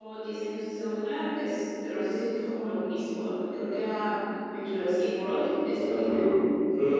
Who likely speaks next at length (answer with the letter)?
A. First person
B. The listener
B